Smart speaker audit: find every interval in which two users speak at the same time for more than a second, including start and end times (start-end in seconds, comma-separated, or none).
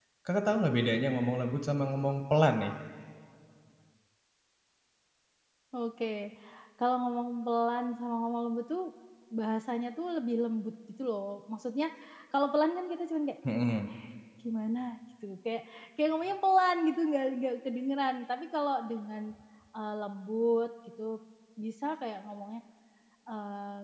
none